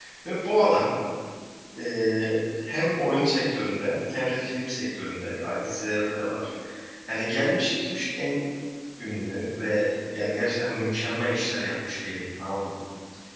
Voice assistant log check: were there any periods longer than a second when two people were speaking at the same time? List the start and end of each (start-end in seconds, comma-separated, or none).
none